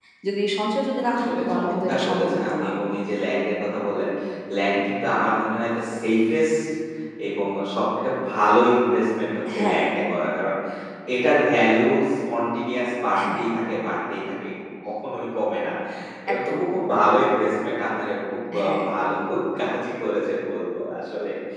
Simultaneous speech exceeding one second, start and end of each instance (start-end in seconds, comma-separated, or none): 1.1-2.7